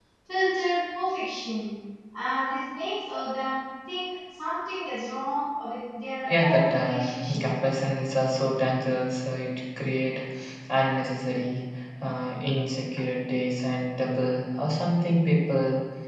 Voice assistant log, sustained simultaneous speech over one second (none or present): present